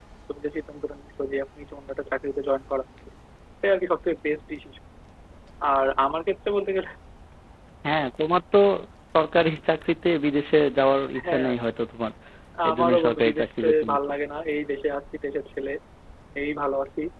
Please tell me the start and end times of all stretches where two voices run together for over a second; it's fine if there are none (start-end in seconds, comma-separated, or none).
12.7-14.1